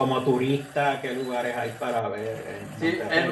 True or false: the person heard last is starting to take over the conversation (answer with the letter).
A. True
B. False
A